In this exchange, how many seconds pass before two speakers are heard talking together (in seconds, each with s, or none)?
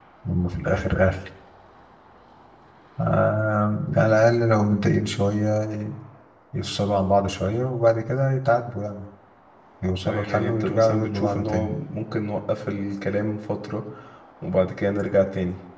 10.1 s